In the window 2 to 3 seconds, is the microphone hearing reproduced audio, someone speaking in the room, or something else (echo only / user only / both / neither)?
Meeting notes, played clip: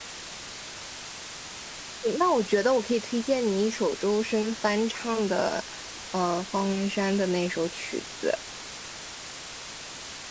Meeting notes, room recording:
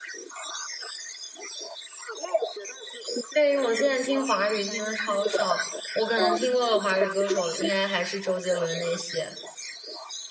echo only